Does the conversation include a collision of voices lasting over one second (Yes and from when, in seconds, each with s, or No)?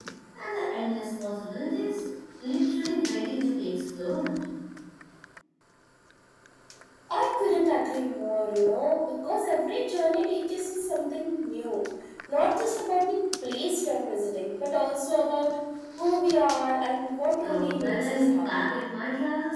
Yes, from 17.4 s